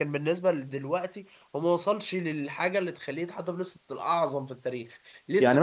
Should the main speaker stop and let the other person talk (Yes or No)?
No